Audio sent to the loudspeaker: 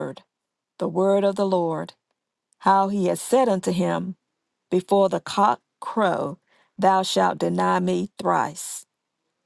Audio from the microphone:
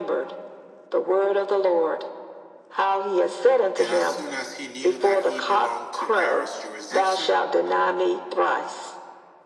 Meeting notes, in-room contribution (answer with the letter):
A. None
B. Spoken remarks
B